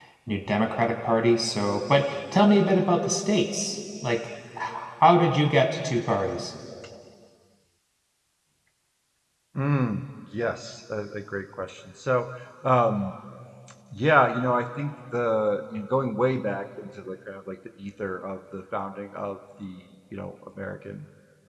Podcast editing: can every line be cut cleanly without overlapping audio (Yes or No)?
Yes